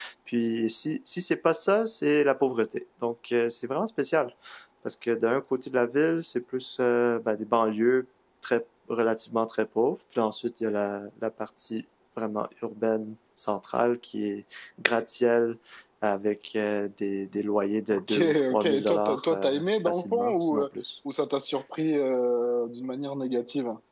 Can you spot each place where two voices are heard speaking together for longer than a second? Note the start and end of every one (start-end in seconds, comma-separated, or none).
17.9-20.6